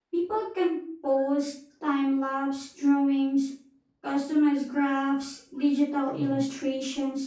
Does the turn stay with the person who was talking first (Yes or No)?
Yes